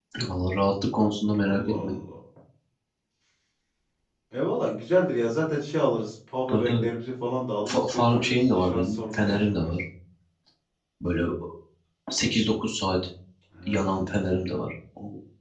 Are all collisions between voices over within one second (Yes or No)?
No